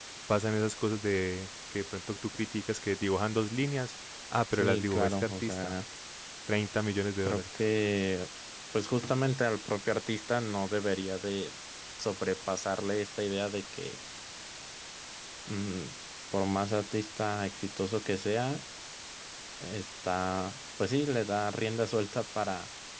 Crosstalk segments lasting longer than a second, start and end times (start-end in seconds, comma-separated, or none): 4.5-5.7